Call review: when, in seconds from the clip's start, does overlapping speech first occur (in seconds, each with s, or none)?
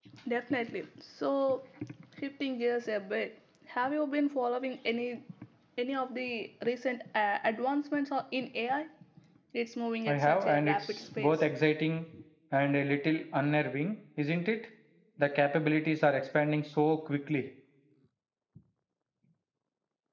10.1 s